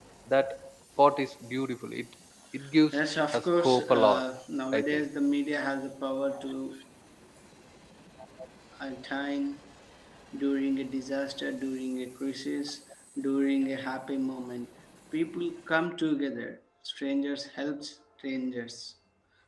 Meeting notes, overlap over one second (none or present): present